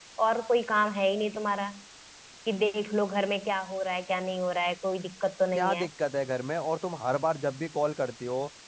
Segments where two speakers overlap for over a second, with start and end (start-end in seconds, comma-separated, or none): none